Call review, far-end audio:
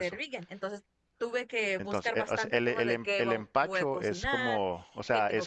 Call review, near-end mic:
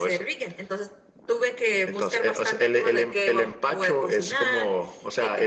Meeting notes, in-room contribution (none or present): none